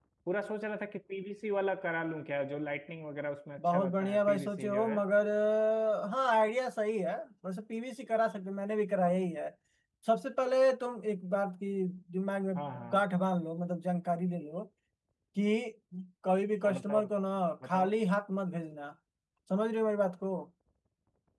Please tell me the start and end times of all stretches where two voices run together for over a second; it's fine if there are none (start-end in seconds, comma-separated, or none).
3.6-5.0